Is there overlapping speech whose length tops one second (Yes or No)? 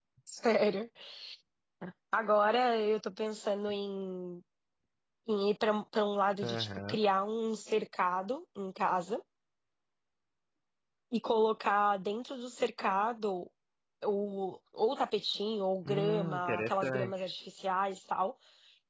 Yes